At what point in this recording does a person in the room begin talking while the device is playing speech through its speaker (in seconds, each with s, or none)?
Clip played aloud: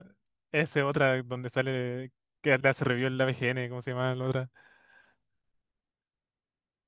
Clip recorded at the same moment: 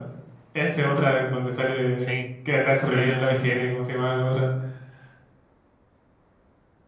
2.0 s